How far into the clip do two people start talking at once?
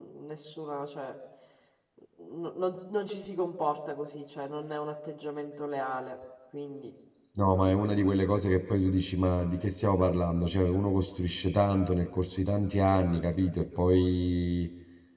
none

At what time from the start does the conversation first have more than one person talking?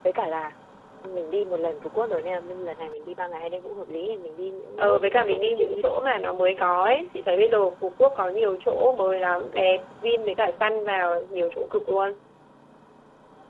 4.8 s

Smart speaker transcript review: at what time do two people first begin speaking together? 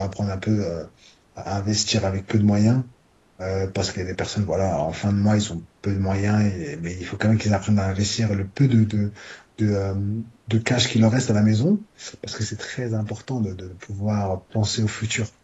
none

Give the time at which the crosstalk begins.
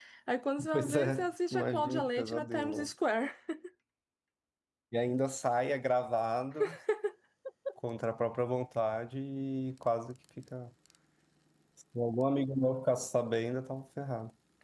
0.7 s

